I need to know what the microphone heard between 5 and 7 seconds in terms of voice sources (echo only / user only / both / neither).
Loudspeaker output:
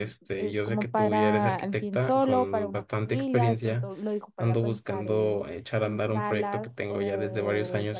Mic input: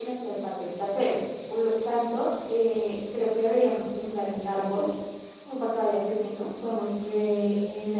user only